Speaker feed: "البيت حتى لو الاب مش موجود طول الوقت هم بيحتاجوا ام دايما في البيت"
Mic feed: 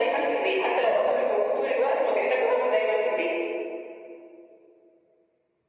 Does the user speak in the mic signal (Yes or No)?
No